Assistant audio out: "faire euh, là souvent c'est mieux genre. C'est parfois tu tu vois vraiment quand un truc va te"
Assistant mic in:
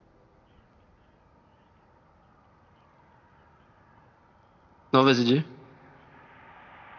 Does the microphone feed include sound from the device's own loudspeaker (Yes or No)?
No